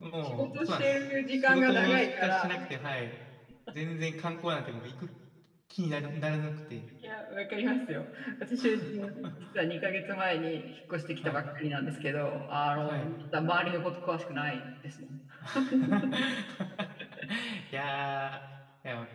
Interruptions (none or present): present